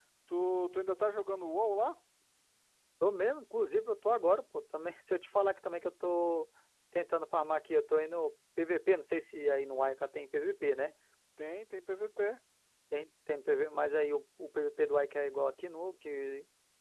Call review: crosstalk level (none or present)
none